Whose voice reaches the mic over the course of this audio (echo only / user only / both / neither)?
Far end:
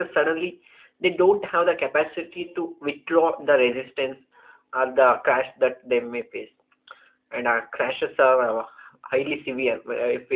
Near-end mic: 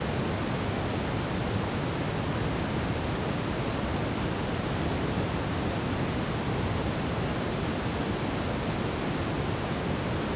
neither